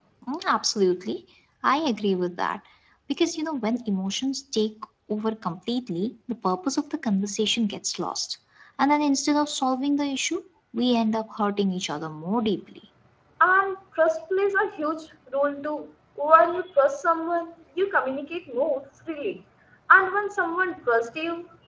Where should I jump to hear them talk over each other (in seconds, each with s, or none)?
none